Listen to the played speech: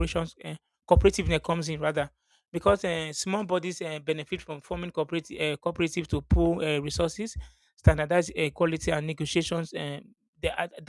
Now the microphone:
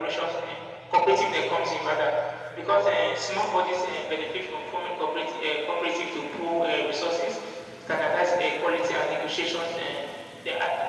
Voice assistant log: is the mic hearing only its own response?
Yes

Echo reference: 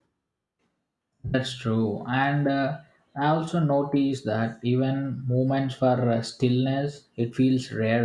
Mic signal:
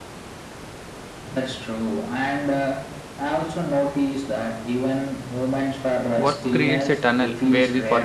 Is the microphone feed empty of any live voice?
No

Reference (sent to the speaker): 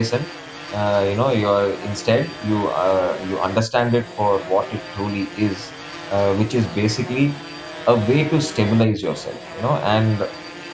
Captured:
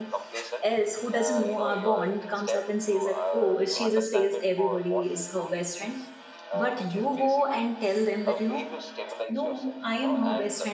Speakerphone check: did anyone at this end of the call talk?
Yes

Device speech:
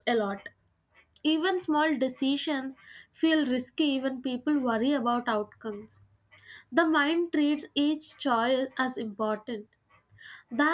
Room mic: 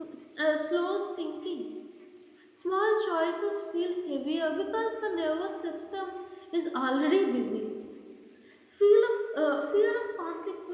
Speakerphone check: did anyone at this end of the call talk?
Yes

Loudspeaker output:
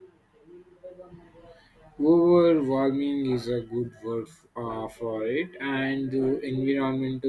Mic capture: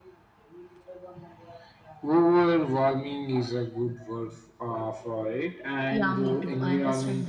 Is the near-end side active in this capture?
Yes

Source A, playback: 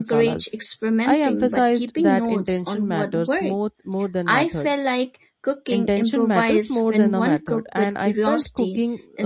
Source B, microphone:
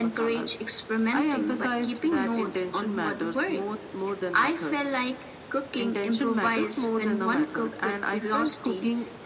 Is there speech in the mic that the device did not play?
No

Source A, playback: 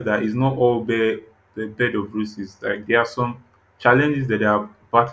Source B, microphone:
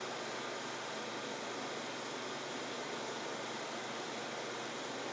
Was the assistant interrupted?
No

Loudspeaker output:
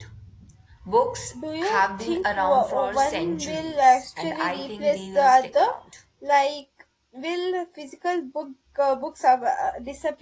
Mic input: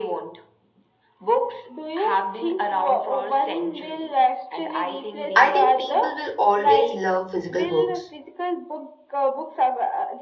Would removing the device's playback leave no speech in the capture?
No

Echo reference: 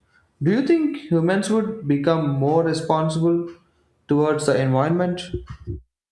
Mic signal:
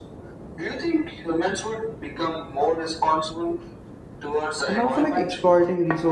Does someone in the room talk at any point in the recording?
Yes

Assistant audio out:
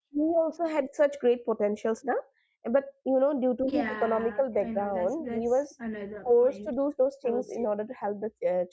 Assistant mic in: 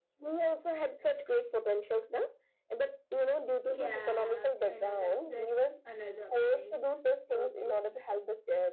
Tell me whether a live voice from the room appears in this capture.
No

